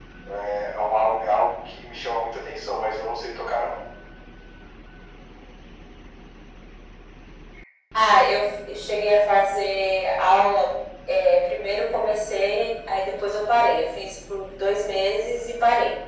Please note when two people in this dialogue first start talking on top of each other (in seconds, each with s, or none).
none